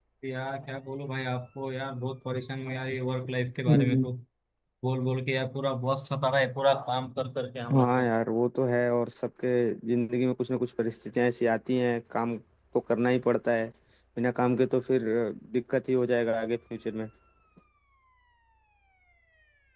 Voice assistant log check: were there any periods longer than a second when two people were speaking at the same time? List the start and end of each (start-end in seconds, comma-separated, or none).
none